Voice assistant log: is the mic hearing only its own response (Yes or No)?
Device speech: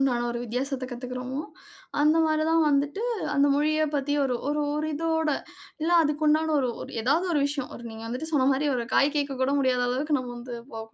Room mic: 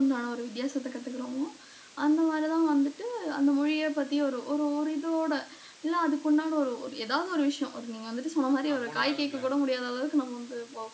No